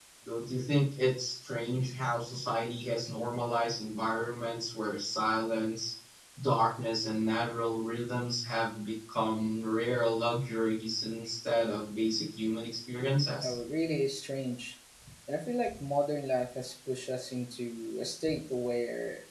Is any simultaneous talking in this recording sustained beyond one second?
No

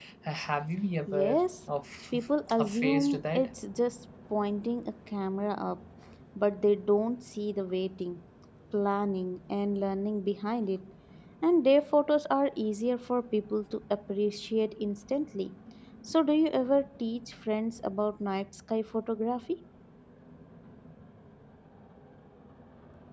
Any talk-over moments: Yes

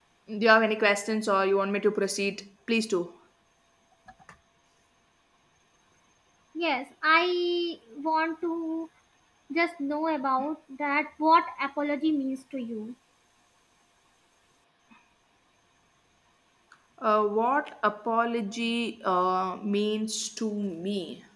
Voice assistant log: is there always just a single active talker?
Yes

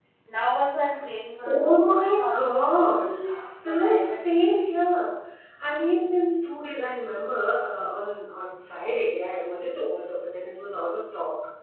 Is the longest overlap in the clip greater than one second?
Yes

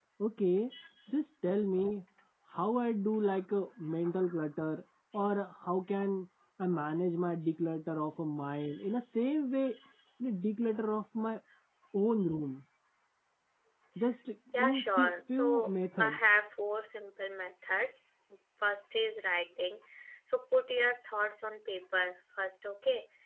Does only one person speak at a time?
No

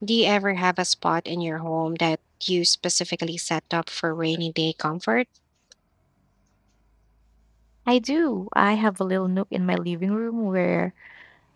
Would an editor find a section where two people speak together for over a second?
No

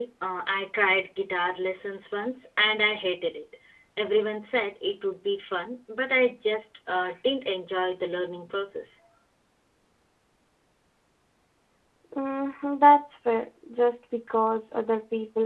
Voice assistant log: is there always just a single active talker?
Yes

